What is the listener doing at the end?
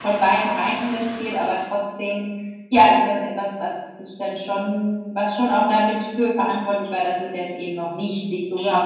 taking over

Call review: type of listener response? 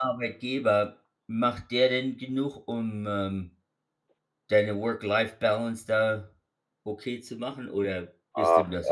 taking over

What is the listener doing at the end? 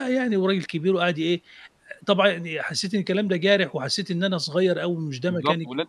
taking over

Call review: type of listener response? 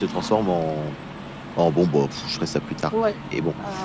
taking over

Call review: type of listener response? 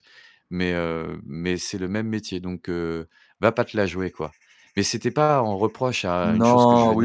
taking over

